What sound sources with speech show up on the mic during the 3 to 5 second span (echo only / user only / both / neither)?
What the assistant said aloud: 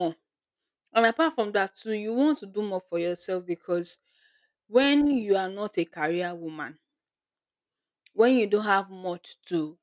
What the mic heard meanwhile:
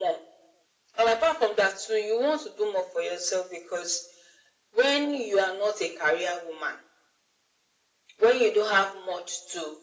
echo only